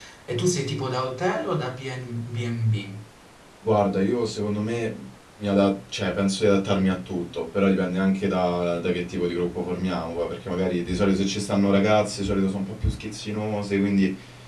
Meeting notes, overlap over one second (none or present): none